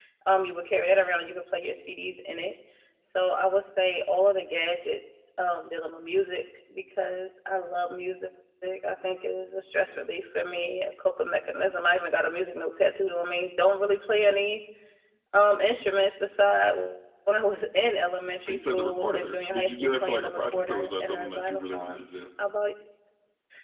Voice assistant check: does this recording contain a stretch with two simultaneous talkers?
Yes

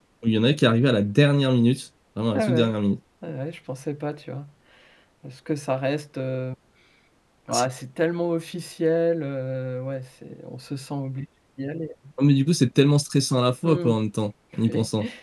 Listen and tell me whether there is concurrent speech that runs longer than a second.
No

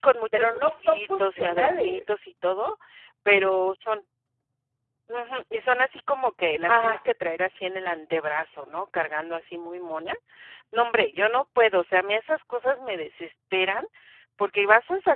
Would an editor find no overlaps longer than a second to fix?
No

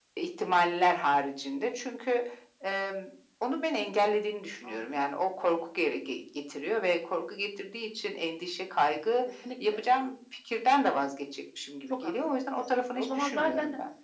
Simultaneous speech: Yes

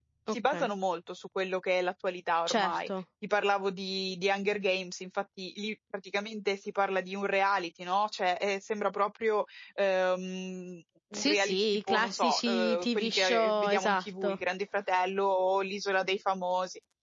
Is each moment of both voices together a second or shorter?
No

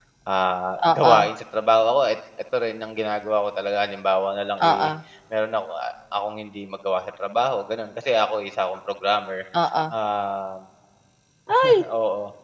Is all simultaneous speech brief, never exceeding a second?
Yes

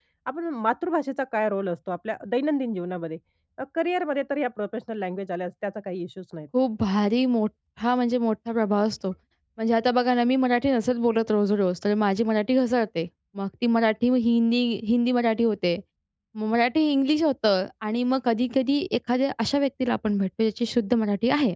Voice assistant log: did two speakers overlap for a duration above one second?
No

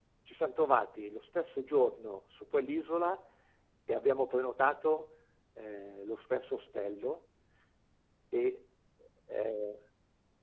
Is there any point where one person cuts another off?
No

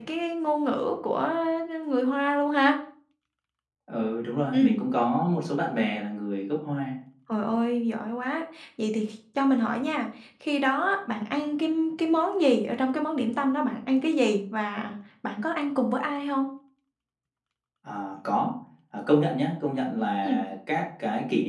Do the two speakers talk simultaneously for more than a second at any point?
No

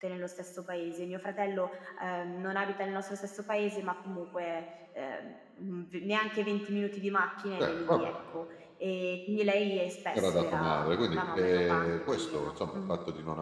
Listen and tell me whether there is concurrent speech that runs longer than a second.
Yes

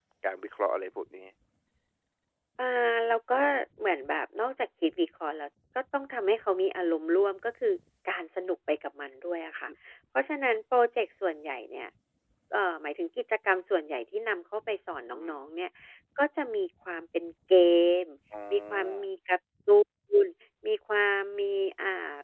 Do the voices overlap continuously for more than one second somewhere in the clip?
No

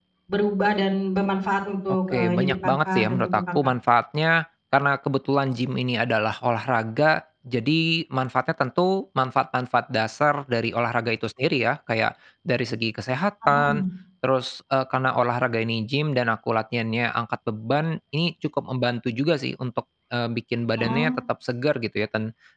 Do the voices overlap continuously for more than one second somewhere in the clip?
Yes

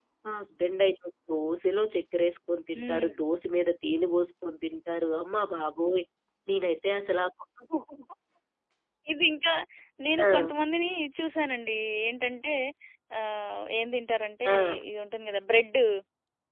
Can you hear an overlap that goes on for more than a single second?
No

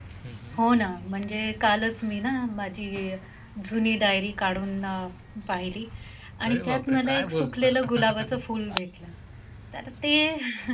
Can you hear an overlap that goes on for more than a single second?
Yes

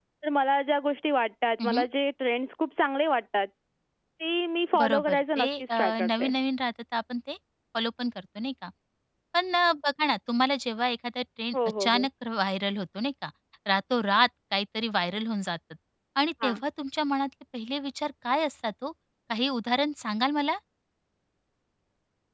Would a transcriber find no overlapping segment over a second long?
No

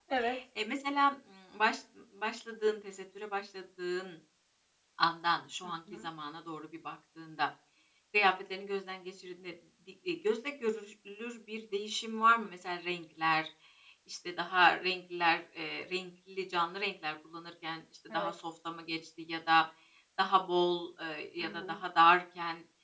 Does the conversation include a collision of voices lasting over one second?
No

